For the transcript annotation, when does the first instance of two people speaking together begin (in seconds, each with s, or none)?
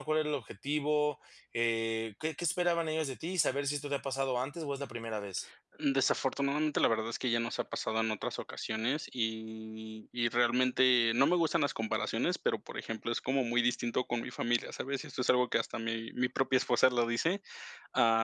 none